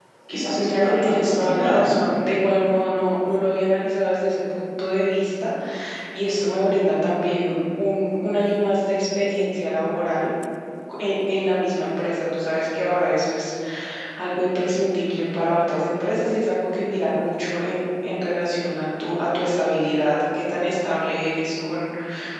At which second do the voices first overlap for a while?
0.6 s

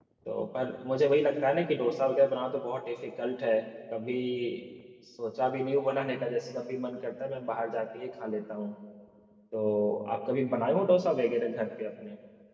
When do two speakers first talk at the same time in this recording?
none

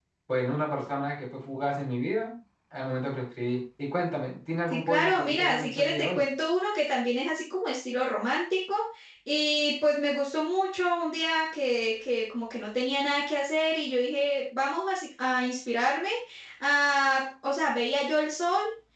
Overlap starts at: 4.7 s

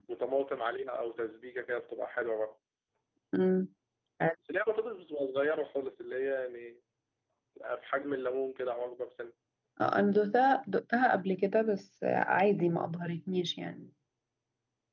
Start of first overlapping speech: none

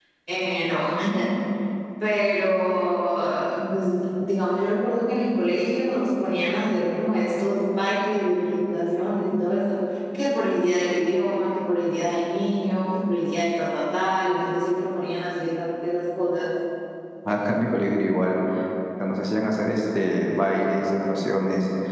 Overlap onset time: none

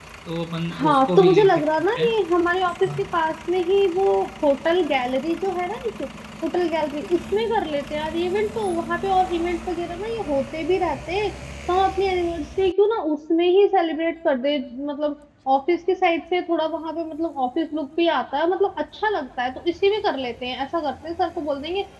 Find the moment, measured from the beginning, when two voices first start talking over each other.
0.7 s

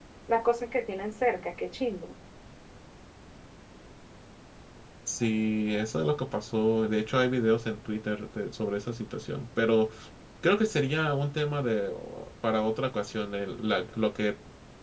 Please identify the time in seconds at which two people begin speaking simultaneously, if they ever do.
none

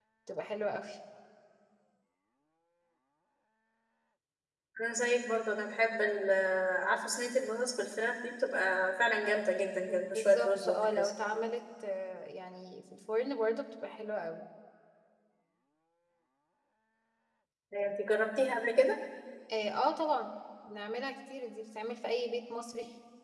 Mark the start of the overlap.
9.9 s

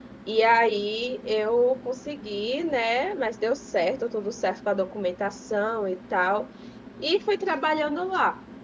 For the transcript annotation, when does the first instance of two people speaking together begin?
none

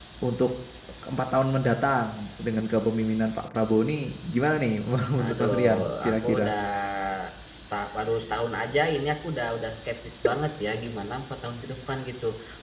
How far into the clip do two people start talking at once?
5.2 s

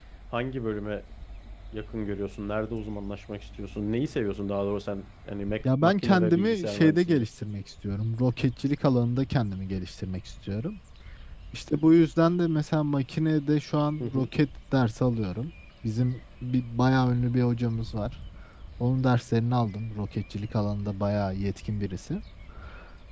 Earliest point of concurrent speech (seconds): 5.6 s

